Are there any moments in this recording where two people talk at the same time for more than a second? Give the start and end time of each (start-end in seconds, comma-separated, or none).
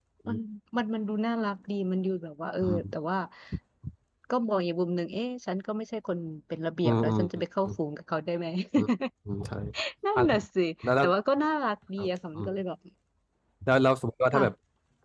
none